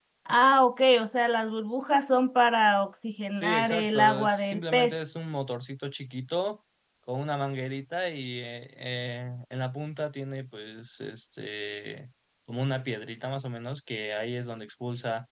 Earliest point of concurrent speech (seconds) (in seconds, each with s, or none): 3.3 s